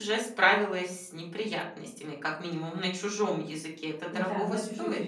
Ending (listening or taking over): taking over